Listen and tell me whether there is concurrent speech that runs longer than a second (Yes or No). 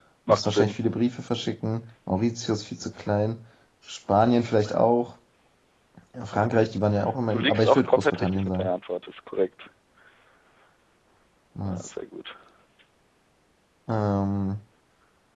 Yes